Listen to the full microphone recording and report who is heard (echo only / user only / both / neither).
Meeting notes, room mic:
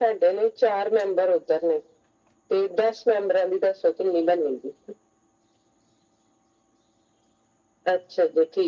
echo only